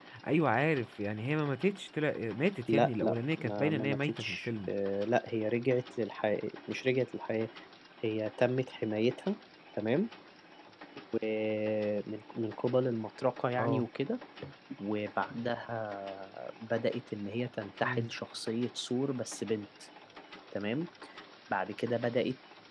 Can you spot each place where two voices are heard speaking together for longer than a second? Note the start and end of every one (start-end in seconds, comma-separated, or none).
2.7-4.7